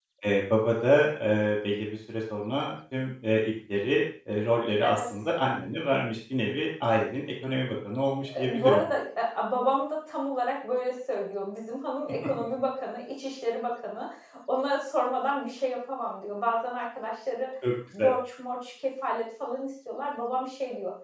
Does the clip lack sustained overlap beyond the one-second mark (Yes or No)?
Yes